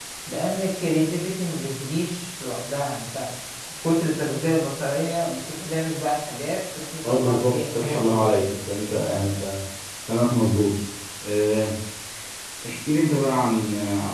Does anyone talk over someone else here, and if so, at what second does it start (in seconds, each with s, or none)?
7.0 s